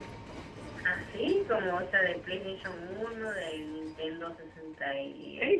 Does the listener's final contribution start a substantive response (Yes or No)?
Yes